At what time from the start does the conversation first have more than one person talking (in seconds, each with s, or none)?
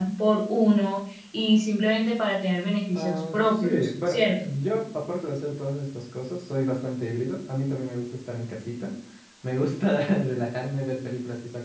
2.9 s